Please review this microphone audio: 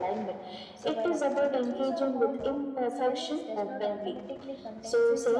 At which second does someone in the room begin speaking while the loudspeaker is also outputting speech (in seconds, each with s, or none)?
0.7 s